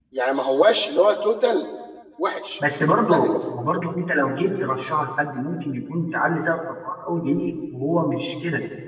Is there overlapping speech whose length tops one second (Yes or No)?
No